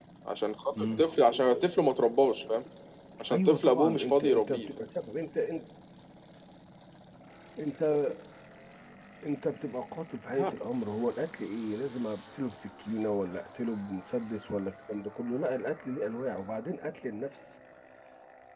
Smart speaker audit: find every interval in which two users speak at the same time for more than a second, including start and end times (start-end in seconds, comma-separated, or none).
3.3-4.6